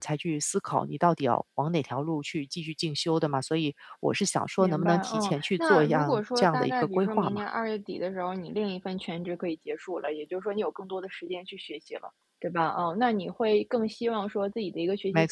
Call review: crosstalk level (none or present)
present